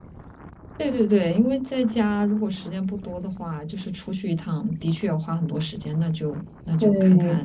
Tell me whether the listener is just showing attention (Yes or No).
No